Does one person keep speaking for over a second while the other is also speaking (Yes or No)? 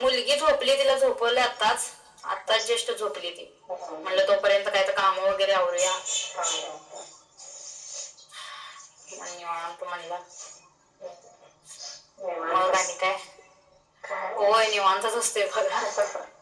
No